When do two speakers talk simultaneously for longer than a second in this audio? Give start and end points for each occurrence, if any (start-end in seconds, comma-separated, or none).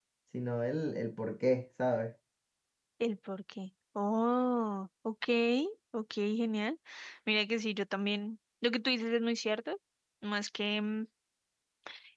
none